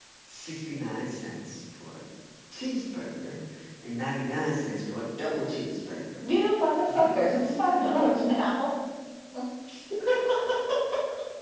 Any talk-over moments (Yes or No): Yes